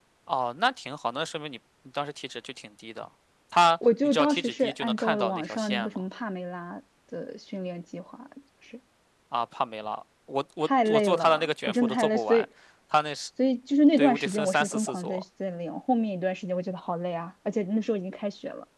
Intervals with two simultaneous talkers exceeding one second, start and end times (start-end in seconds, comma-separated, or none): 4.0-6.0, 10.7-12.4, 14.0-15.2